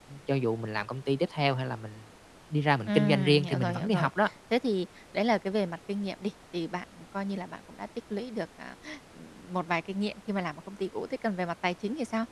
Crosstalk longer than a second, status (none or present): present